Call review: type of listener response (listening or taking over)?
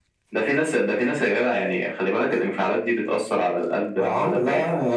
taking over